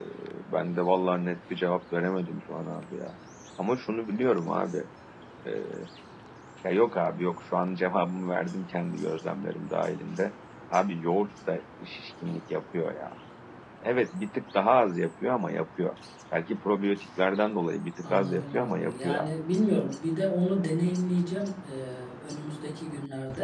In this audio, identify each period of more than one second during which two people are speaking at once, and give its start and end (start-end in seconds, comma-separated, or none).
18.0-19.3